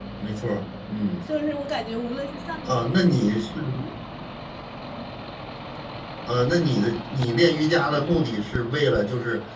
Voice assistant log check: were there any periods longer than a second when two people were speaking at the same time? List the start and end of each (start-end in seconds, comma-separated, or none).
none